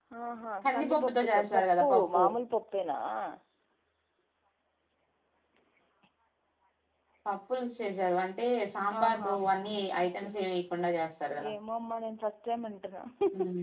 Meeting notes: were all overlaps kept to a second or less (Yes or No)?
No